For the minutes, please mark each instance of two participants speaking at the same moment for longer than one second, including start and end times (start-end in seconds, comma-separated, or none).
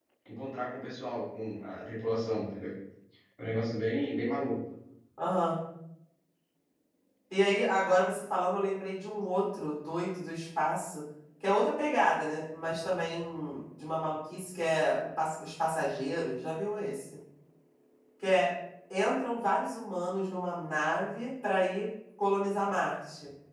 none